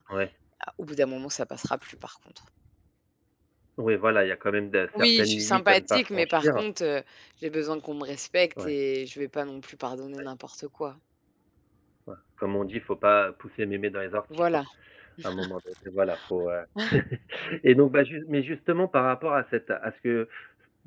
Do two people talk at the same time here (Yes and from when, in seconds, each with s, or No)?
Yes, from 5.0 s